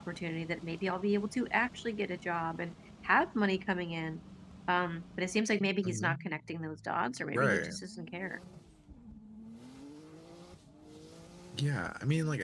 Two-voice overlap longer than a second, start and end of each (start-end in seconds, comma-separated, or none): none